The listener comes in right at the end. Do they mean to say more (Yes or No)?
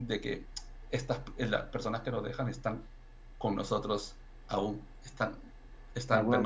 Yes